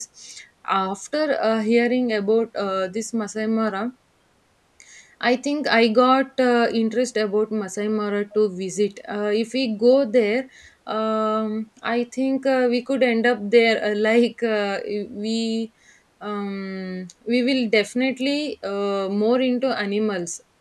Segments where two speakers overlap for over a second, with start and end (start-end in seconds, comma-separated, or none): none